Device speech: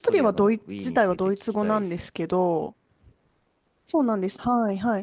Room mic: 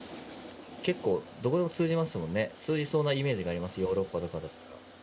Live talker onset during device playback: 0.8 s

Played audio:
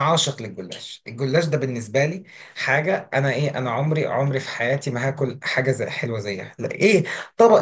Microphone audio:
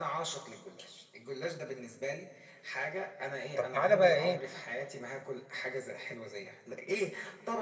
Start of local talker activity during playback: 3.5 s

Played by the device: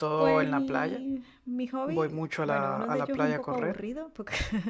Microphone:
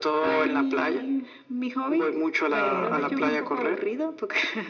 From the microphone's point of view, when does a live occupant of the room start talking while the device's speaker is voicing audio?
2.5 s

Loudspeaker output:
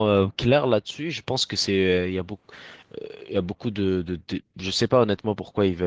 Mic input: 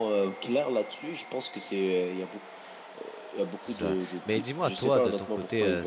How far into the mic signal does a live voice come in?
3.6 s

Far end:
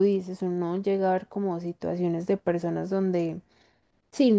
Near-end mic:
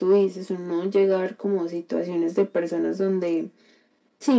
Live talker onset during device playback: none

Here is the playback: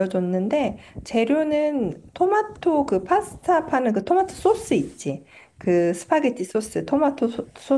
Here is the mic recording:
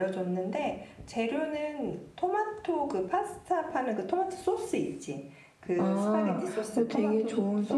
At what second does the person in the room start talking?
5.8 s

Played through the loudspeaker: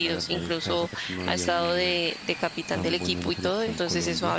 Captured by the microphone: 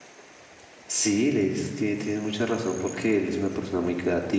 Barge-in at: 0.9 s

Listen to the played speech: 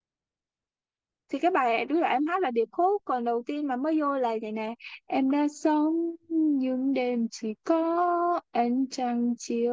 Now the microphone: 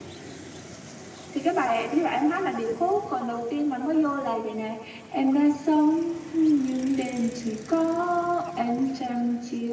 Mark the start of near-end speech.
none

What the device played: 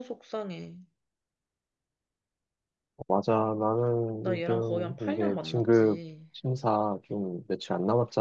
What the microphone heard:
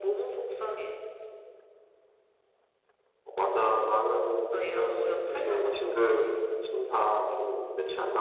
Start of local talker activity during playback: none

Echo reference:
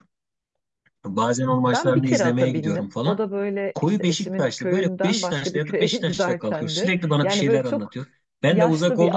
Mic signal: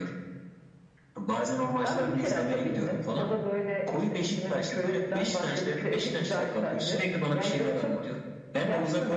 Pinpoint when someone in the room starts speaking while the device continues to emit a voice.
none

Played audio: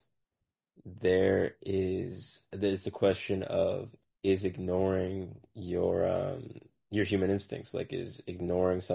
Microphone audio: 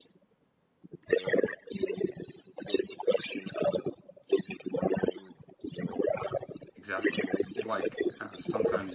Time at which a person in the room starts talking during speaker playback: 6.8 s

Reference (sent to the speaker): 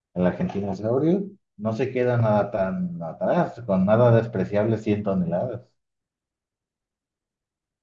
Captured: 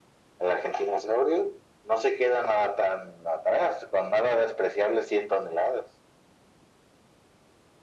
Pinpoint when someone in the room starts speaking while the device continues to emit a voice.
none

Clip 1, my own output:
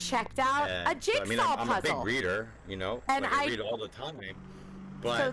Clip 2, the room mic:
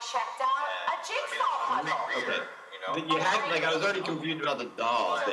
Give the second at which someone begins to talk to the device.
1.4 s

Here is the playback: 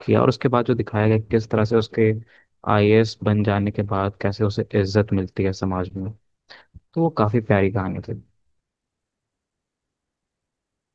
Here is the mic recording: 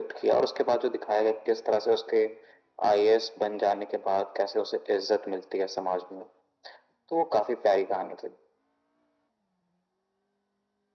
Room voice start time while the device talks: none

